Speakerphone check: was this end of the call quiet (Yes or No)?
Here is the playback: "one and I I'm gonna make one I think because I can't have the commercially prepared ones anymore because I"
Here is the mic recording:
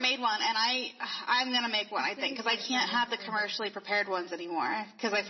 No